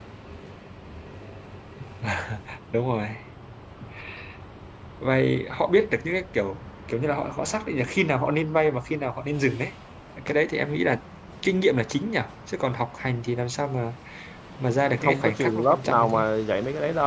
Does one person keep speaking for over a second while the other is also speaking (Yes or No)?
Yes